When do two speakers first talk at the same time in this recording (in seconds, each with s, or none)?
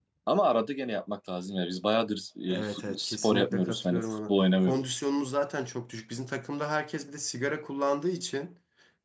2.5 s